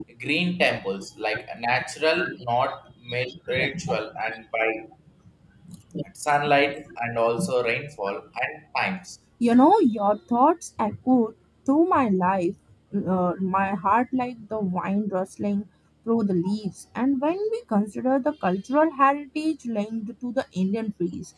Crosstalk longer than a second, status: none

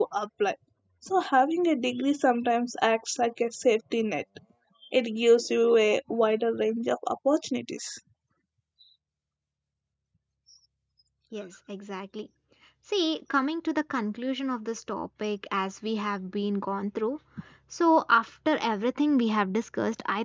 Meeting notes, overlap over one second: none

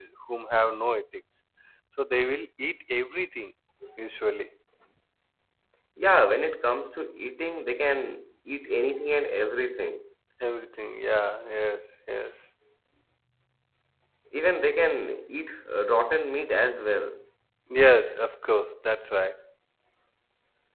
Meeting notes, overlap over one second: none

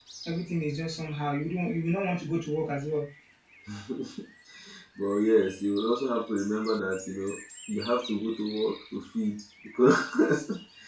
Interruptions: none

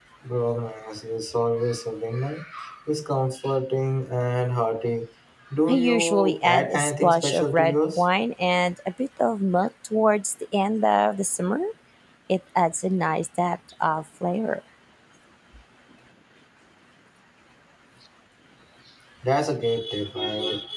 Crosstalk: present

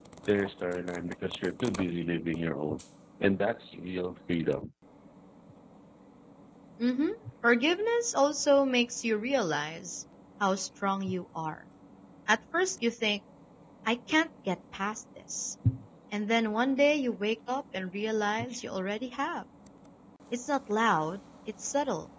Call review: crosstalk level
none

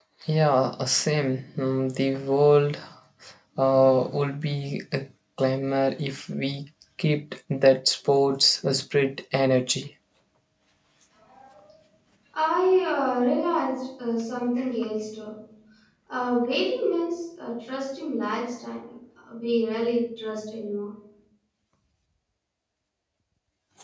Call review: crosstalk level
none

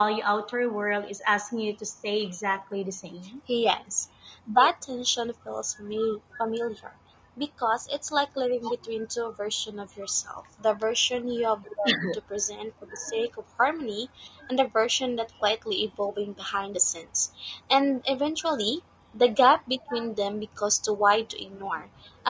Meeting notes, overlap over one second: none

